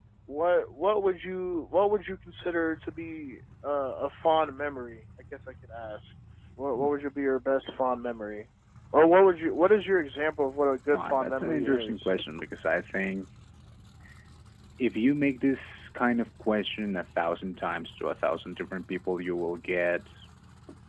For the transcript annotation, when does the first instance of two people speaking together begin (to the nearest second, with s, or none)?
11 s